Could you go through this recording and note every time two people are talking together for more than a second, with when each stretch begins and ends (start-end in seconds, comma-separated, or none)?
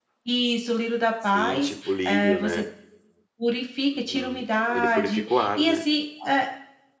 1.4-2.6, 4.1-5.8